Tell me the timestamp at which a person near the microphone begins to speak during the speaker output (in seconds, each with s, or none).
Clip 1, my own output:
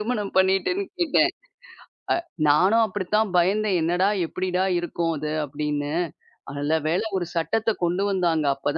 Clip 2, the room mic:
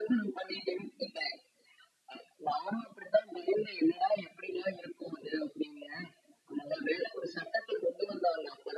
none